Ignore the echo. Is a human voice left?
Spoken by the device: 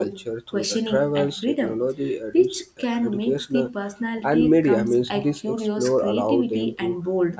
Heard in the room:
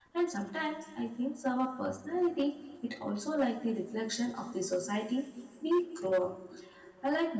Yes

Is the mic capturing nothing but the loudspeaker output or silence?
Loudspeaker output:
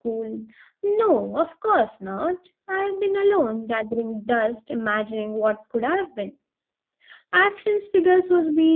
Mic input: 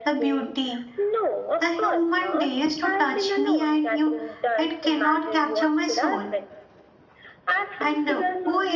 No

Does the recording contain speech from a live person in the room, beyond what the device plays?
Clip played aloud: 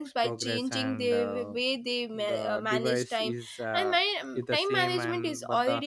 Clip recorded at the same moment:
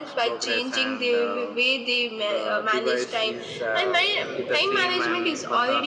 No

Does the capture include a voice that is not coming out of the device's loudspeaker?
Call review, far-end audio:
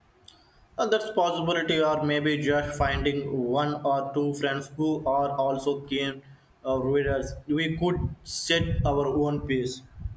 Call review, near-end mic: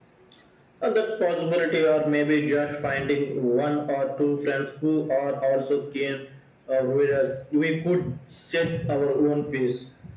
No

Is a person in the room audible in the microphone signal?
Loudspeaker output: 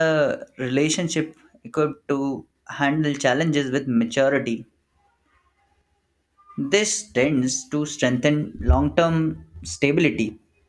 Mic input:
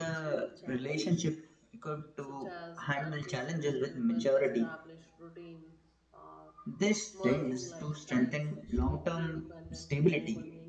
Yes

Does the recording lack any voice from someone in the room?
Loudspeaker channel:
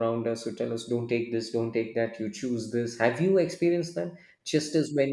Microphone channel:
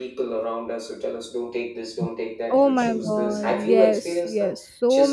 No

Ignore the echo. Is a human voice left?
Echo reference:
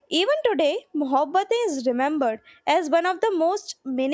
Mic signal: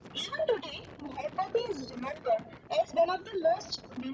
No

